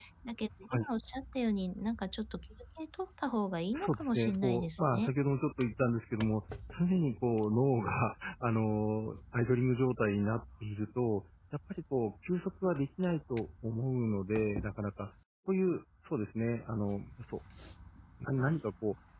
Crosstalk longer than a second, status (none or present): present